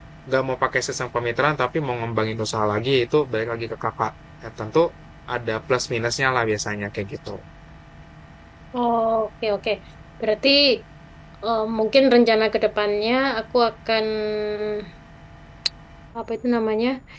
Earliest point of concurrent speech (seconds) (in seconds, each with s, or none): none